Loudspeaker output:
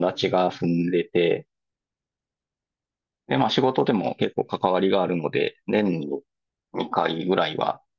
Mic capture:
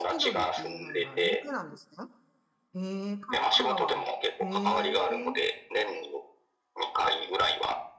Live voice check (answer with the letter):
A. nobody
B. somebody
B